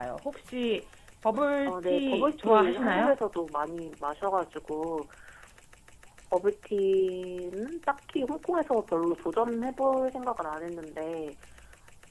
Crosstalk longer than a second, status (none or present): present